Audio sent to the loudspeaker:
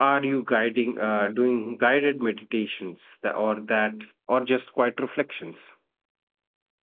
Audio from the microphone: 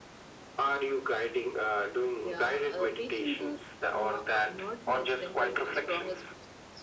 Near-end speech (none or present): present